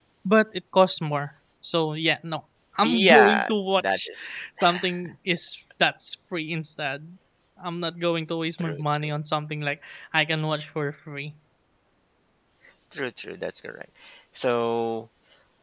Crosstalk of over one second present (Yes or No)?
Yes